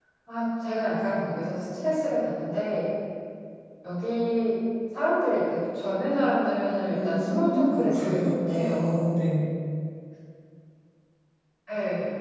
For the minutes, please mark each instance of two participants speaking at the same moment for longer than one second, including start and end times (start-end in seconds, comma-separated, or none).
6.9-9.1